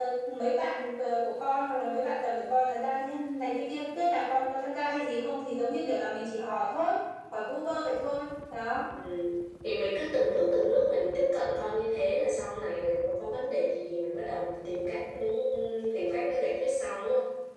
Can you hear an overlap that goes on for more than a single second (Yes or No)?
No